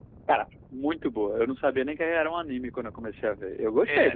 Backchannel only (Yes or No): No